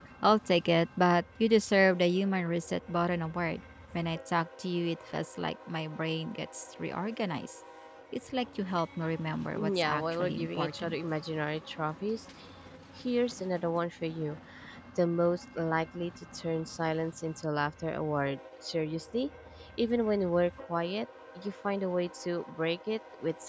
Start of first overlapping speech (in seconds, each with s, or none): 9.6 s